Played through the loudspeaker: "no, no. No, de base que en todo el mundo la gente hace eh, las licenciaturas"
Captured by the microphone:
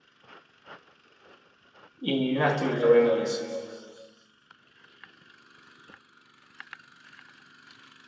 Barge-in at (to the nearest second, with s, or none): 2 s